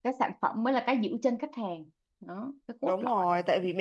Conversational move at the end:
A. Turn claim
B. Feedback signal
A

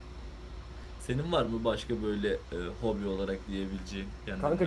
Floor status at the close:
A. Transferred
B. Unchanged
A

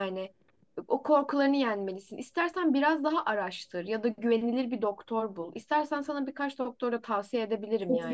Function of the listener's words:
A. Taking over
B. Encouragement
A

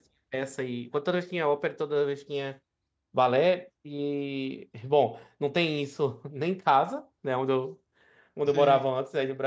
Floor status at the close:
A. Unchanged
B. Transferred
A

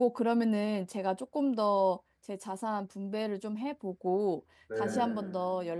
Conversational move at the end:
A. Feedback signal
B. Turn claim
A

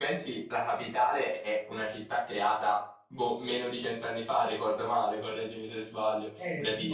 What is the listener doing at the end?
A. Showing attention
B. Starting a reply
B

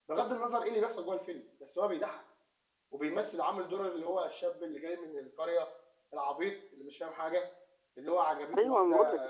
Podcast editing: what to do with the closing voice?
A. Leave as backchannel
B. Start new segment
B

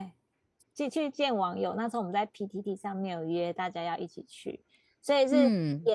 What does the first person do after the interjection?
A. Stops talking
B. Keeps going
B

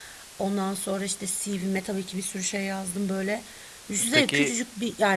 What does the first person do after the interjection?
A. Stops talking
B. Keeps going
B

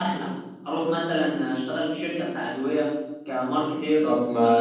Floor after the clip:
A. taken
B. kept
A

